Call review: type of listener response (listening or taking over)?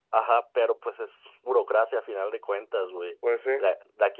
listening